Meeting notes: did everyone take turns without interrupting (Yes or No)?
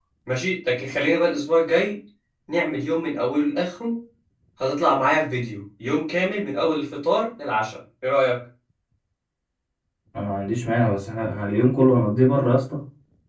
Yes